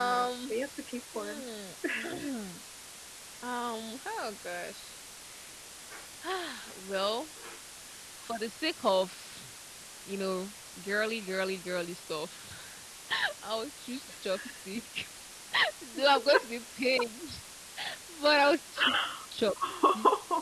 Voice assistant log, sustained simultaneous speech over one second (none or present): none